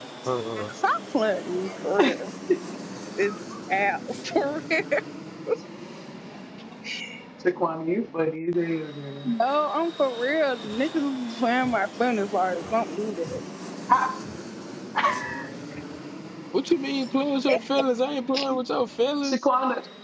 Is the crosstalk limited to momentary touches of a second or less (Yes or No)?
Yes